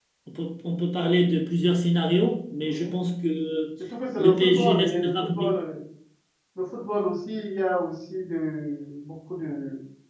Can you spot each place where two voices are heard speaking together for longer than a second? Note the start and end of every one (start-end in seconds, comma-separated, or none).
4.2-5.5